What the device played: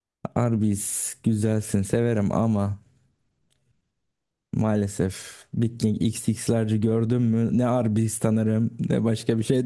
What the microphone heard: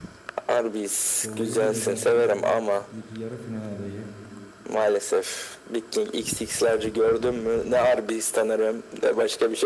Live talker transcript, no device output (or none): dolayı bile zaten bir yarı final adayı.